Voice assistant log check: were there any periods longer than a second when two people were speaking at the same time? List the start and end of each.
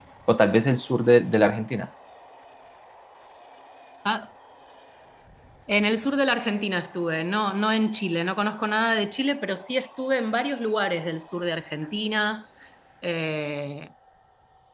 none

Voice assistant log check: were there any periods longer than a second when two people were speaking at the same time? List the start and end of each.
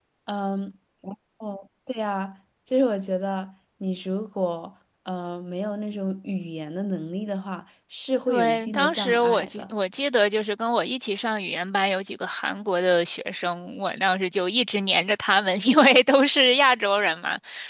8.3-9.6

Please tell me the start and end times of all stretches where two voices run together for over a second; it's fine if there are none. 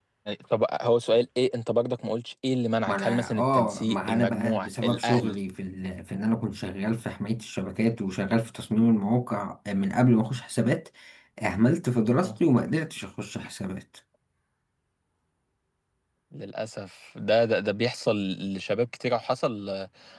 2.9-5.3

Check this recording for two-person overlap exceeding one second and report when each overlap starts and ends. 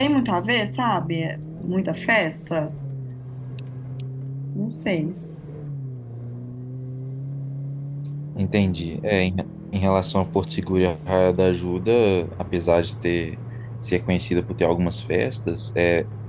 none

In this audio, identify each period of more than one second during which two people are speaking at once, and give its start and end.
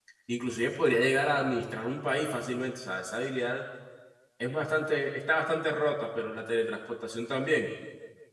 none

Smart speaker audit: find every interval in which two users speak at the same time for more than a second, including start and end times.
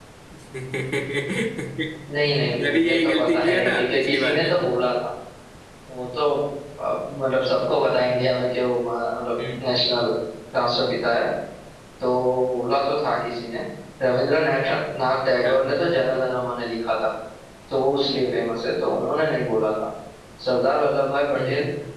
2.2-4.5

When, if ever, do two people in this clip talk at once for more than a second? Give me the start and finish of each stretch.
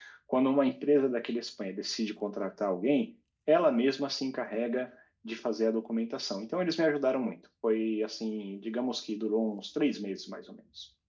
none

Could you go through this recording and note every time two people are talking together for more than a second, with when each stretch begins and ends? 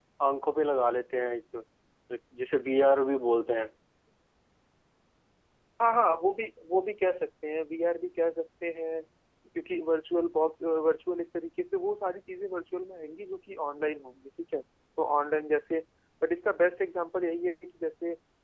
none

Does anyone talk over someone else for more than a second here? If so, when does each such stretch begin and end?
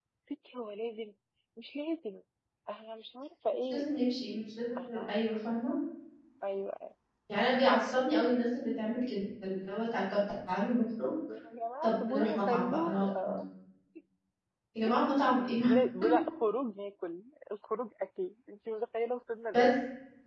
11.8-13.3

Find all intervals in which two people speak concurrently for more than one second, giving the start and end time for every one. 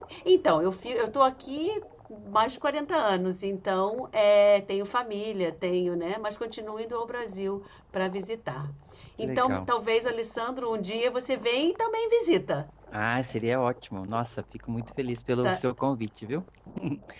none

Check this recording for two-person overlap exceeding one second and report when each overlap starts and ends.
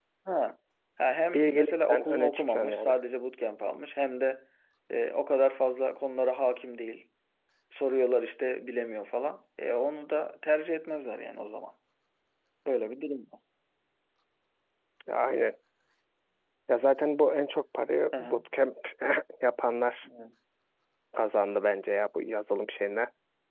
1.3-2.9

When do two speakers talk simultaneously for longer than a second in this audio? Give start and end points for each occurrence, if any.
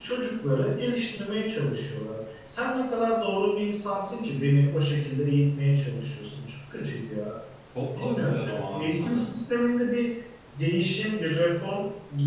8.0-9.3

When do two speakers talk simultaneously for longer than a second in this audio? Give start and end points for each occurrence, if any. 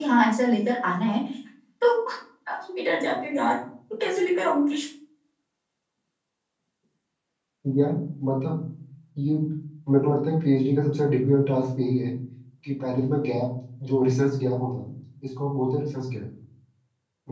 none

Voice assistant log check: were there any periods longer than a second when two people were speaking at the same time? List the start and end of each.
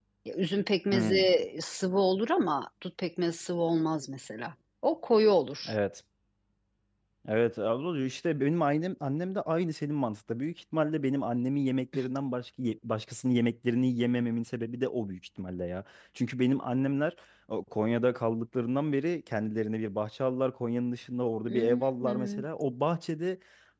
none

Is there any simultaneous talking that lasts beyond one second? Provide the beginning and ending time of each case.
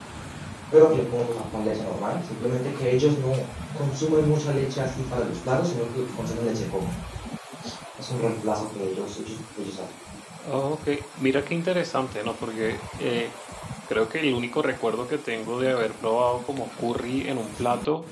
none

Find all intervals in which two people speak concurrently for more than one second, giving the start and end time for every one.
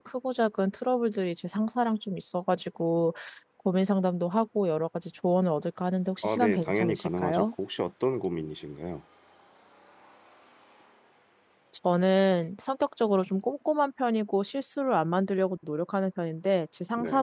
6.2-7.5

